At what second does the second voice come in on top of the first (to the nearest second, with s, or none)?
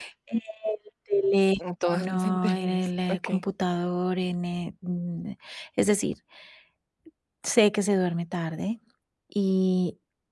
2 s